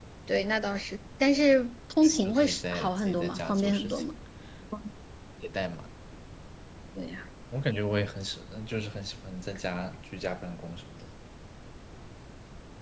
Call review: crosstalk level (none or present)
present